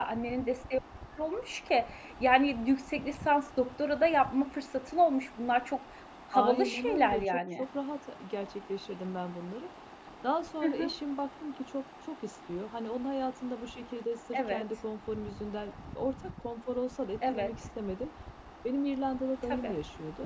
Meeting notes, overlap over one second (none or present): present